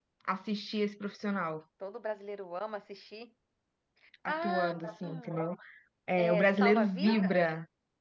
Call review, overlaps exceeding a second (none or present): present